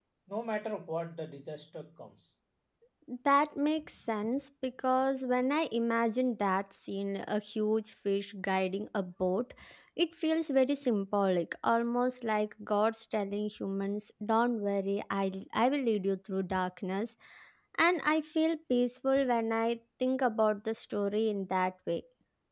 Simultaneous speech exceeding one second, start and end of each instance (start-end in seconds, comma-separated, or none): none